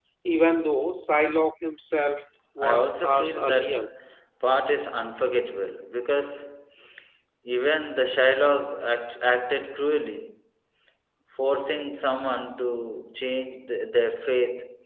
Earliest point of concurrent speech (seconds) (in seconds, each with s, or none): 2.6 s